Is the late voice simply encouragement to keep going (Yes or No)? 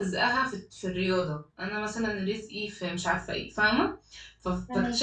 Yes